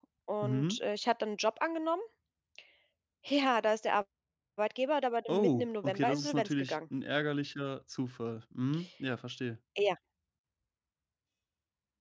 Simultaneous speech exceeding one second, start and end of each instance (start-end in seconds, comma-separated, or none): 5.3-6.8